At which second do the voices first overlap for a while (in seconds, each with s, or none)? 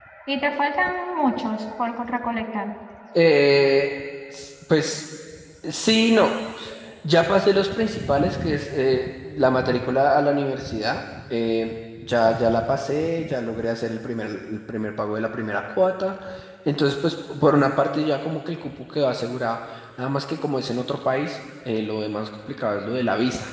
none